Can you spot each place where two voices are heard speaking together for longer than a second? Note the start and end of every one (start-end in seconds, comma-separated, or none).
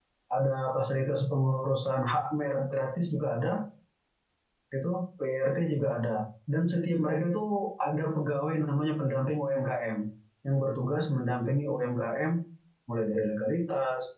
none